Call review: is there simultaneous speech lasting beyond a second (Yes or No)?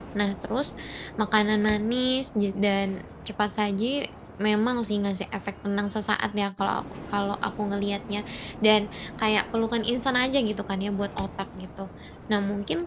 No